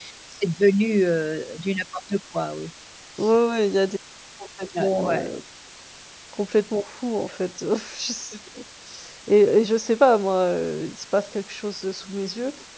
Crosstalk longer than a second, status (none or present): none